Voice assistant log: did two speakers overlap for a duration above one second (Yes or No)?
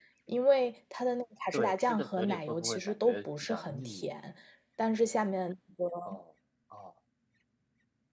Yes